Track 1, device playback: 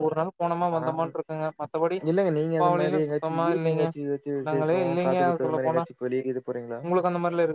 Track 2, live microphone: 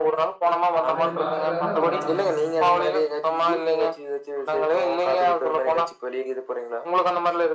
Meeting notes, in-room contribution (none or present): present